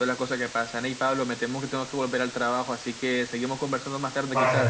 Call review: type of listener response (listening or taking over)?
taking over